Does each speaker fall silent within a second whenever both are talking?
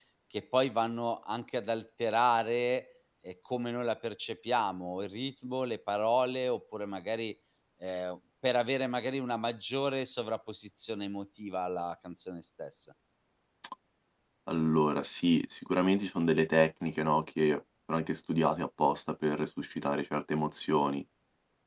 Yes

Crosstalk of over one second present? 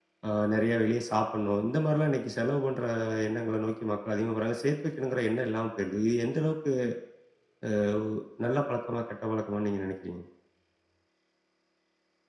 No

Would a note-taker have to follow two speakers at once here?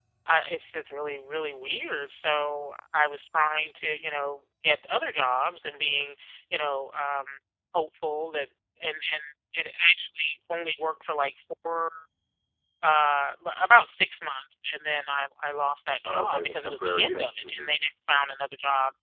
Yes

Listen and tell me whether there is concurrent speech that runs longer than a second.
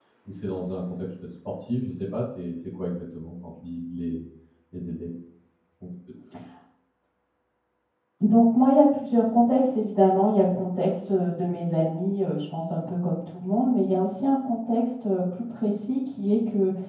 No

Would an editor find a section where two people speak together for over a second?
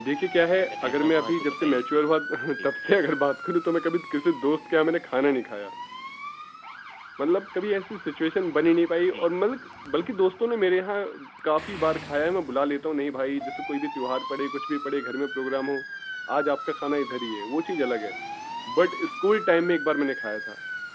Yes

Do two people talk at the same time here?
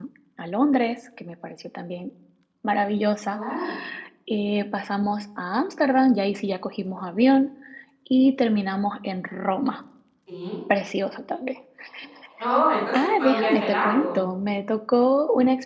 Yes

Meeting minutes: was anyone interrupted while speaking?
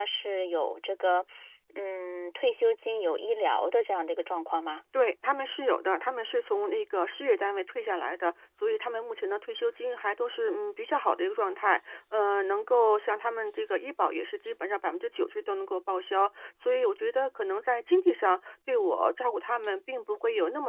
No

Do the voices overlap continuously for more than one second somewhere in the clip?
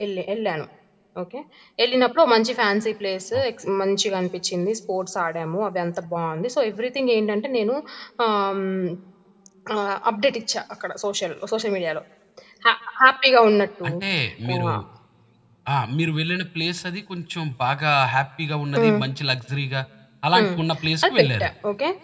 No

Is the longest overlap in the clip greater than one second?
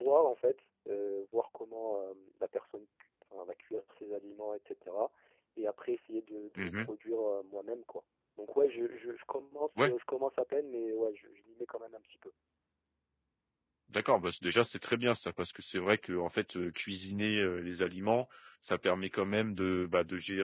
No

